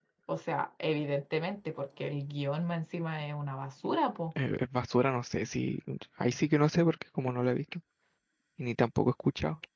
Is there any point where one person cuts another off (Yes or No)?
No